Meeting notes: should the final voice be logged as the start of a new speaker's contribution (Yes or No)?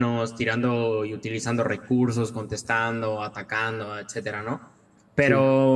No